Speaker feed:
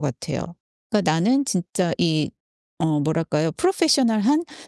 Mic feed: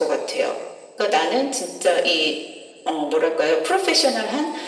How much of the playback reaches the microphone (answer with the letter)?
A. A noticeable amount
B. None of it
A